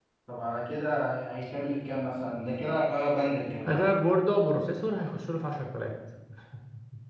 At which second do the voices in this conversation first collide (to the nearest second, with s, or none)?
none